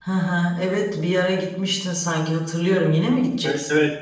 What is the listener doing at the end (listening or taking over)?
taking over